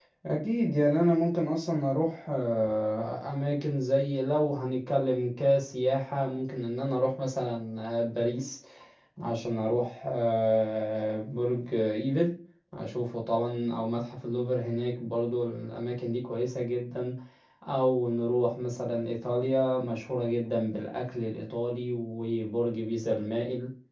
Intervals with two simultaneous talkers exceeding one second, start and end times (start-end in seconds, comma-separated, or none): none